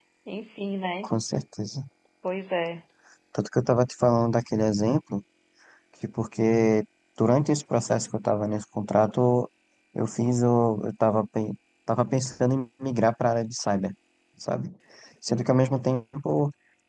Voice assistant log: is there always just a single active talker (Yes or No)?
Yes